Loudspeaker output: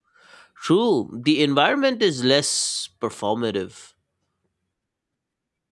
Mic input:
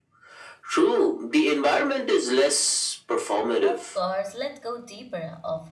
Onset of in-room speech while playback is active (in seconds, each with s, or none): 3.6 s